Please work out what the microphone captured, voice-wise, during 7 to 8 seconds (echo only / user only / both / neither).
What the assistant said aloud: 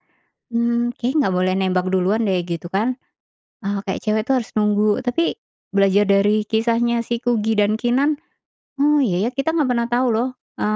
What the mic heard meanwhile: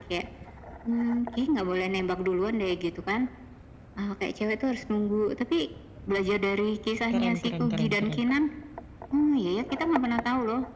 both